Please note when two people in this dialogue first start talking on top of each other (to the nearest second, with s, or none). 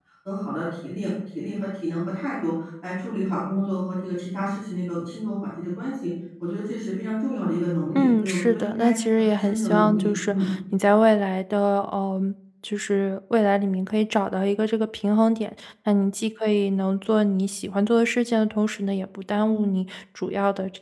8 s